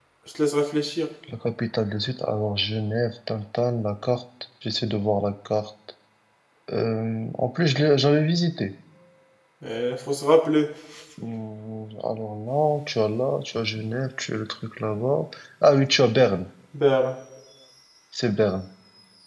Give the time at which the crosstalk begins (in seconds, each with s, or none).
none